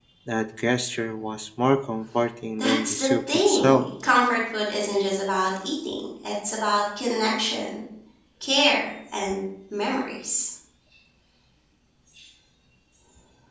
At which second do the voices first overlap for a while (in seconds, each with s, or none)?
2.6 s